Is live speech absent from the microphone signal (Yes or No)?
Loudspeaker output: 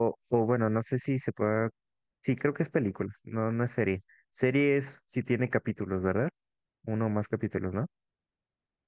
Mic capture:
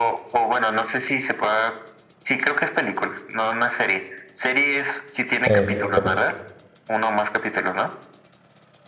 No